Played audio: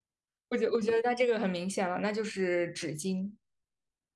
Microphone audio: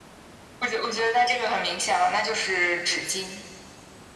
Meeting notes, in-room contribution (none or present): none